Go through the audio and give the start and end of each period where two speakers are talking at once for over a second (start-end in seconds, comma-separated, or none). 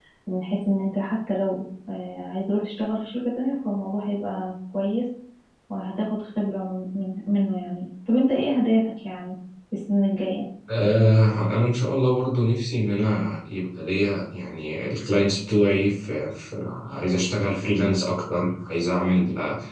none